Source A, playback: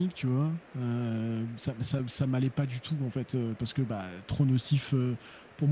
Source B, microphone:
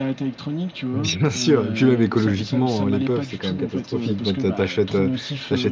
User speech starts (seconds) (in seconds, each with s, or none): 0.9 s